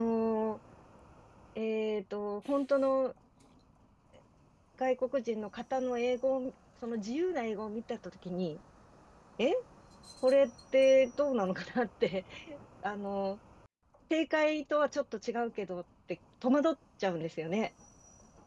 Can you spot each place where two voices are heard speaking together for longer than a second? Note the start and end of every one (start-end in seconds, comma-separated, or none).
none